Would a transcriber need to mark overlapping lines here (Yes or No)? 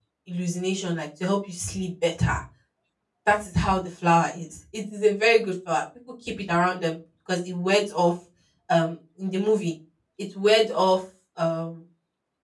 No